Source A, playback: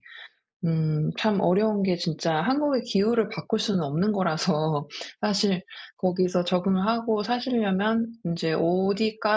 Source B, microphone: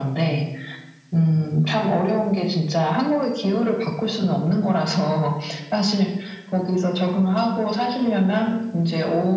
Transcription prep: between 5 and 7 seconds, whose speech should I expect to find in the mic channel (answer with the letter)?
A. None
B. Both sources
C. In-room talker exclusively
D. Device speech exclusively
D